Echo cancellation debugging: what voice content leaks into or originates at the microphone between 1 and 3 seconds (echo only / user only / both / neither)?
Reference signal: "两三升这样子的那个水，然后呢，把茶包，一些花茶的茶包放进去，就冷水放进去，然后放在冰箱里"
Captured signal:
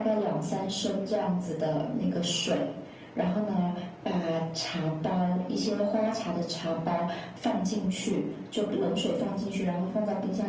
echo only